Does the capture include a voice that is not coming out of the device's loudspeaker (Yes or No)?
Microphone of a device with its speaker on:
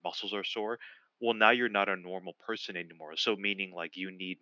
Yes